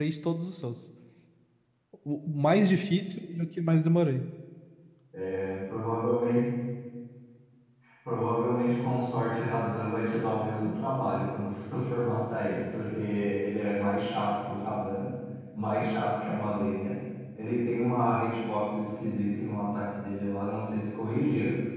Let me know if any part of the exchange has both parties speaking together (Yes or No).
No